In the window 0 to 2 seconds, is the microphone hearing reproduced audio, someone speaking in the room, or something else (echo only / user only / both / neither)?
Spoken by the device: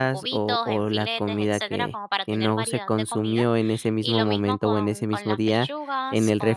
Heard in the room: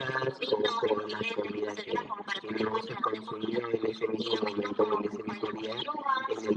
echo only